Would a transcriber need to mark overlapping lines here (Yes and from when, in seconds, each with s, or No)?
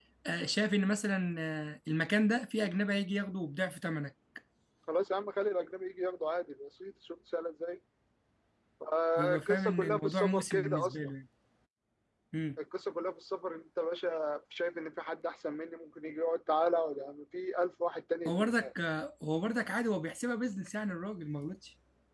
Yes, from 9.2 s